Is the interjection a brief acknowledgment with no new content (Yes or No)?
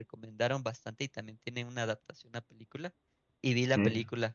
Yes